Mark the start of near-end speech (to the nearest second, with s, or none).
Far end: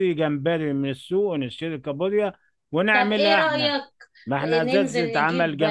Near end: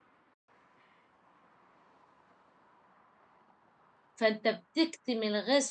4 s